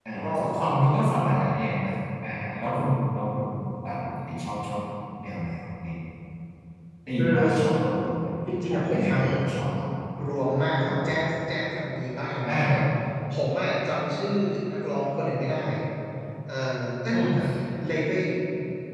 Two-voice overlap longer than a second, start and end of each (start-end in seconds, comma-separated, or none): none